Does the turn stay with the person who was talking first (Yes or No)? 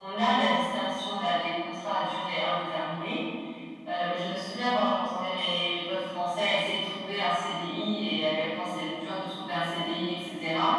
Yes